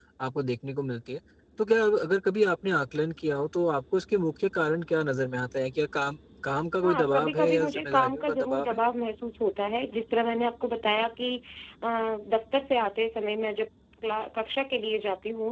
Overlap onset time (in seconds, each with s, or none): 6.8 s